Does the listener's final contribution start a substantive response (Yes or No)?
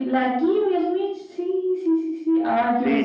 Yes